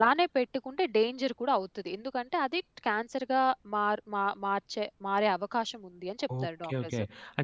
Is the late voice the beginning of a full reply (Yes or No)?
Yes